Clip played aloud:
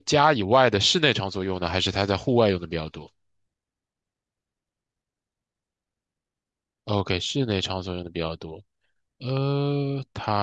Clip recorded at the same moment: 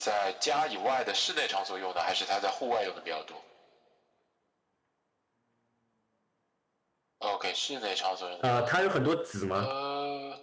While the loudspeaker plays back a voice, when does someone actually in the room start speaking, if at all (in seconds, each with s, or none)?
8.4 s